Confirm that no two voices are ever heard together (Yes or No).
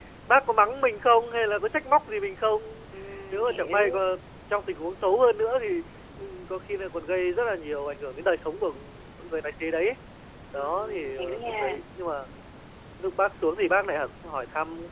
No